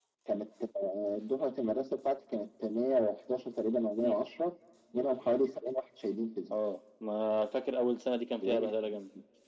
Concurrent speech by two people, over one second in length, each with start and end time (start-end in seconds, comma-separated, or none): none